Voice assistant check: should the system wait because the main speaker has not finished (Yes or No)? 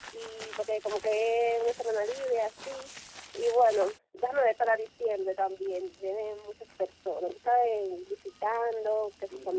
No